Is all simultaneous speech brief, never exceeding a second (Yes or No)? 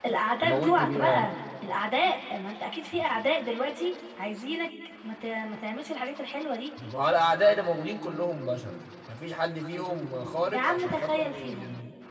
No